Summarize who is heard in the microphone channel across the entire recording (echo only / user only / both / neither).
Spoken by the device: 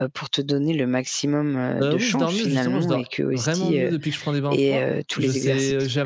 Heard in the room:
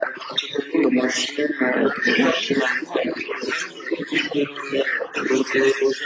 echo only